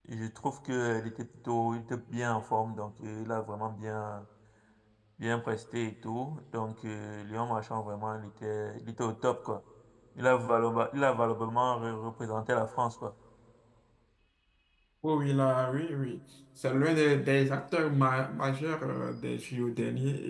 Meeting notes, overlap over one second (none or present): none